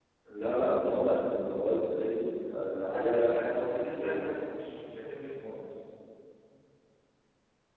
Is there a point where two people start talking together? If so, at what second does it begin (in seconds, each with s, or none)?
2.9 s